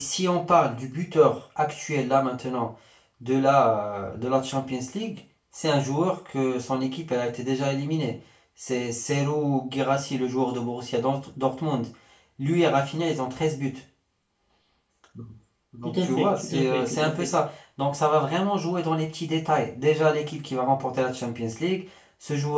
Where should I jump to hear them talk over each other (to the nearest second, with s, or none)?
16 s